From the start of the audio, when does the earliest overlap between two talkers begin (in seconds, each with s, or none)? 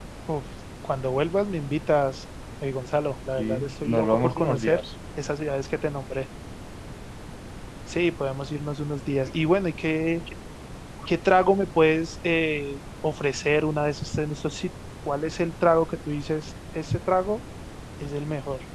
3.4 s